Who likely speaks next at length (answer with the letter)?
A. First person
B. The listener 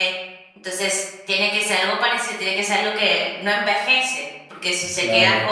A